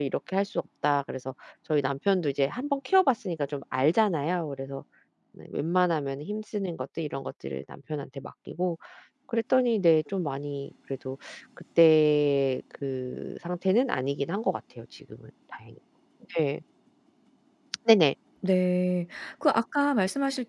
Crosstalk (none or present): none